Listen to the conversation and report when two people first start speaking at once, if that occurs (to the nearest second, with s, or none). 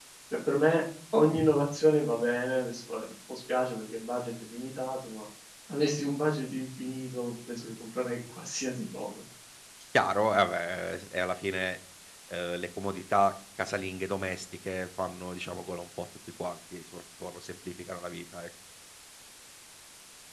none